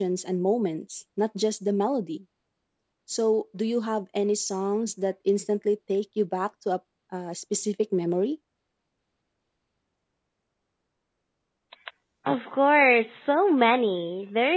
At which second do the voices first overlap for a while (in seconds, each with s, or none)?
none